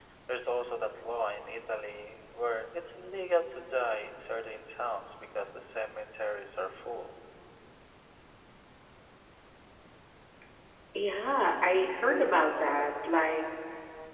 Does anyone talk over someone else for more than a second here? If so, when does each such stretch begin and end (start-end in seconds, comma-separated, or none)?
none